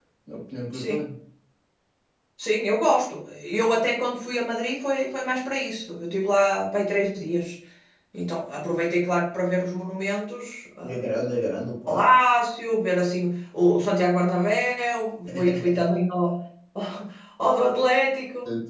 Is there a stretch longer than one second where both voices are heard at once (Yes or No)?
No